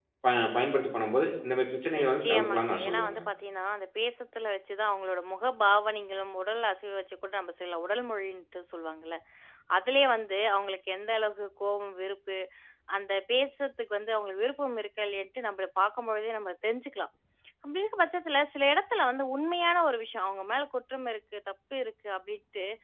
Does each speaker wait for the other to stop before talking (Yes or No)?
No